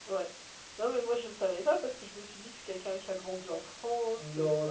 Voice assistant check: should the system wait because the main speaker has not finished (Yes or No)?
No